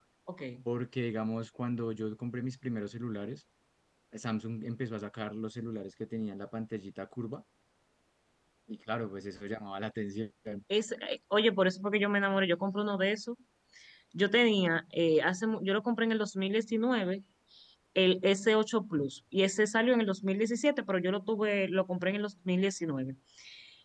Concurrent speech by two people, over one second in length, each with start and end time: none

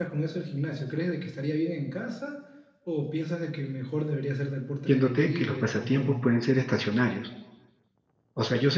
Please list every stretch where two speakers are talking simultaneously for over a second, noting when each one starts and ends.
4.9-6.1

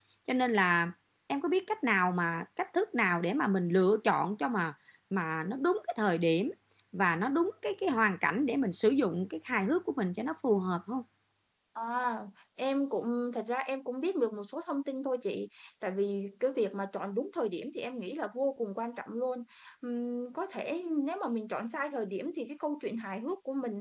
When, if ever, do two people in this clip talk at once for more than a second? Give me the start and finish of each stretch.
none

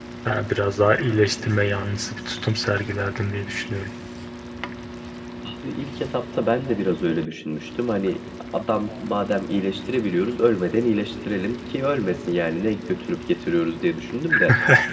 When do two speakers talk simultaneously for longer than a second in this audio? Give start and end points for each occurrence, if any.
none

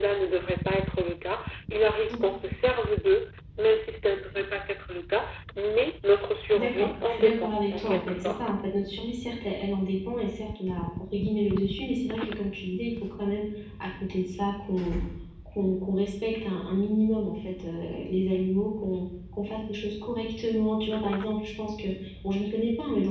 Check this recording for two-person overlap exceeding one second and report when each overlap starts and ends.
6.5-8.5

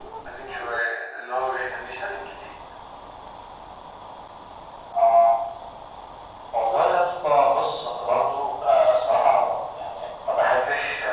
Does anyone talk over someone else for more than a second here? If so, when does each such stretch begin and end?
none

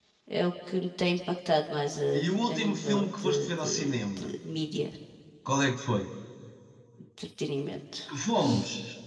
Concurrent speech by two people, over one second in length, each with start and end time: 2.2-4.2

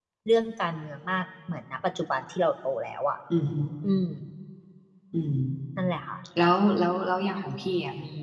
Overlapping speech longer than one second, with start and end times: none

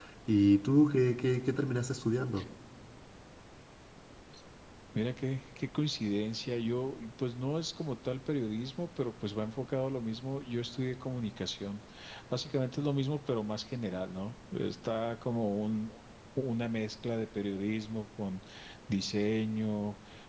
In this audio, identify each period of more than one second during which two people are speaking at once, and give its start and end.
none

